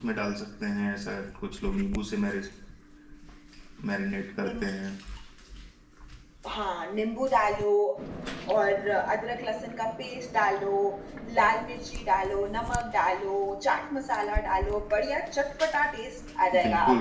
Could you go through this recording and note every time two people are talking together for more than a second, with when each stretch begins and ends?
none

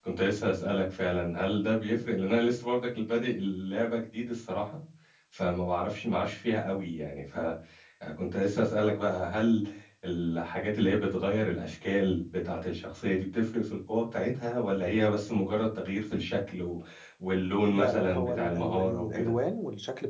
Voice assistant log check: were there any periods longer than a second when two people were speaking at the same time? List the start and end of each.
17.7-19.3

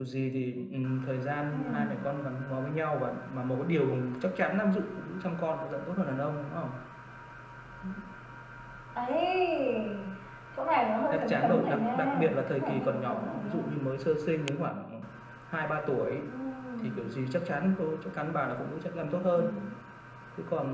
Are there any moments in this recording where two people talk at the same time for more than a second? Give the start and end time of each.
11.1-13.7

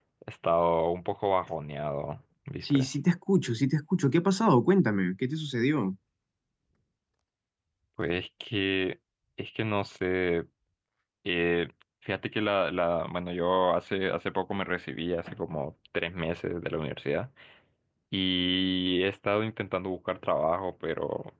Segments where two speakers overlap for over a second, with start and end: none

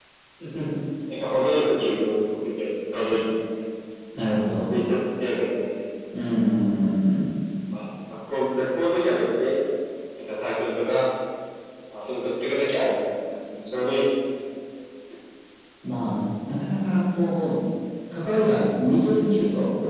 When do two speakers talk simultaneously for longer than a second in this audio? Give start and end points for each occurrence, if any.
none

